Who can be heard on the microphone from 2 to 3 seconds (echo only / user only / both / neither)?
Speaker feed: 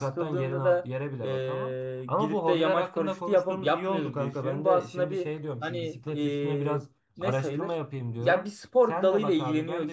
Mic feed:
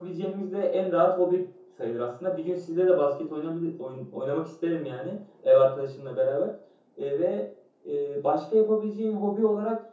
user only